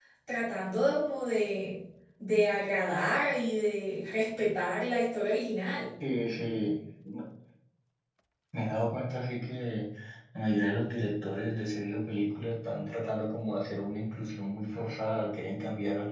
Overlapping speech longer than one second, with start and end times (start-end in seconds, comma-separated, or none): none